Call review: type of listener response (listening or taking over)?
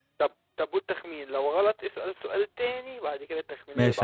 taking over